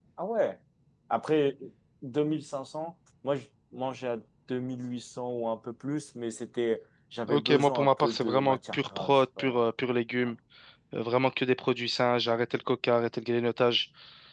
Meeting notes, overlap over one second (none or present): present